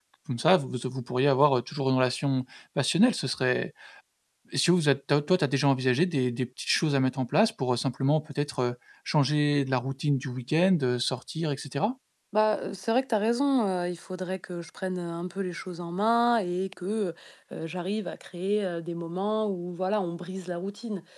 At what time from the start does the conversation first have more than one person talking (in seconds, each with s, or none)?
none